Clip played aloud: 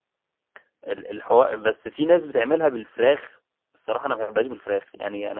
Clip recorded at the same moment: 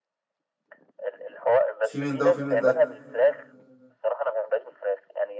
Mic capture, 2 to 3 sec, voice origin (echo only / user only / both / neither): both